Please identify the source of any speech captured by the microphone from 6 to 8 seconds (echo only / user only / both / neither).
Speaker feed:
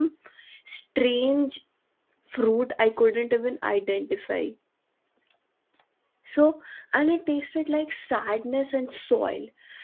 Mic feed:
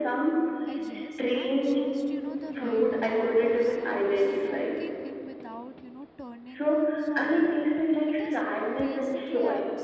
both